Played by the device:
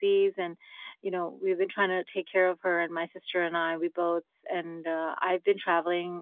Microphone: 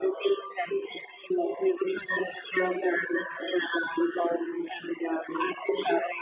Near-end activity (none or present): none